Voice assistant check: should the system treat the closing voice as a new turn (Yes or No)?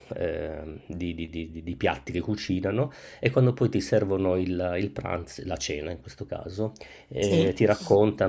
No